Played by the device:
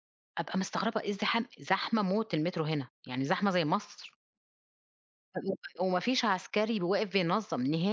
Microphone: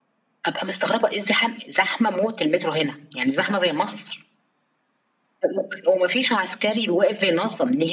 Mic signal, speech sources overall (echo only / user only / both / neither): echo only